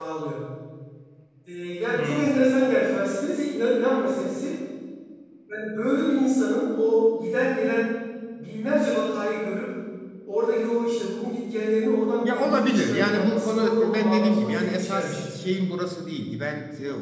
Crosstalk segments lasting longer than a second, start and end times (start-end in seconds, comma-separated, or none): 12.2-15.3